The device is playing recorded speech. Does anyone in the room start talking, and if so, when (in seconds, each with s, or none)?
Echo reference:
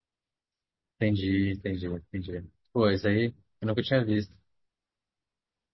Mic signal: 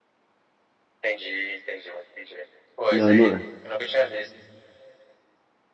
2.9 s